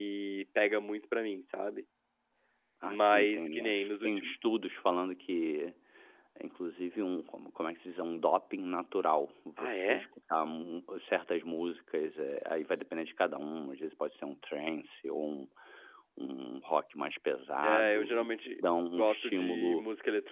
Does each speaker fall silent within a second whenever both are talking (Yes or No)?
No